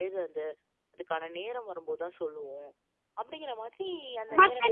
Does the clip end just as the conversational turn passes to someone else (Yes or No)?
Yes